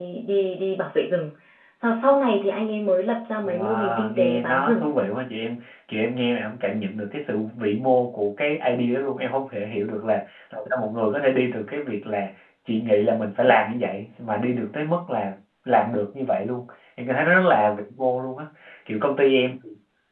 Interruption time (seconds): 3.4 s

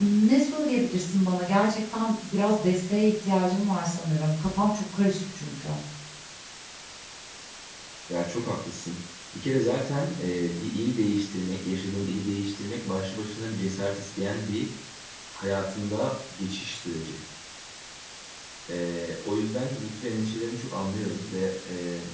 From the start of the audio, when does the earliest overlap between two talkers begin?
none

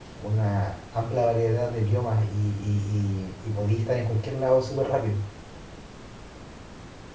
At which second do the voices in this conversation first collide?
none

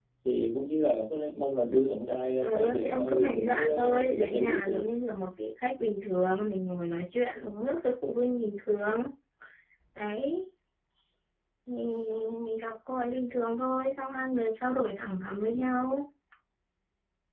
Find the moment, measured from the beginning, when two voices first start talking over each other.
2.4 s

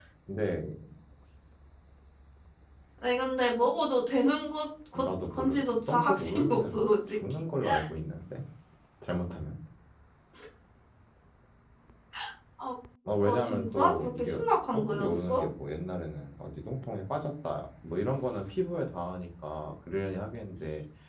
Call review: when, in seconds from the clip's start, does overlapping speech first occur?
5.0 s

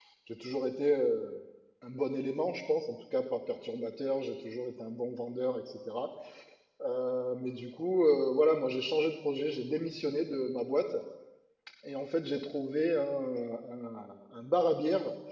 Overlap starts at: none

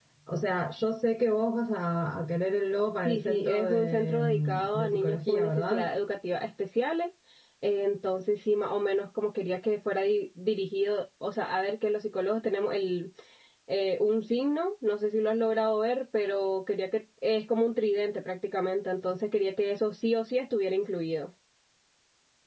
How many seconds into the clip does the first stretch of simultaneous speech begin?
3.0 s

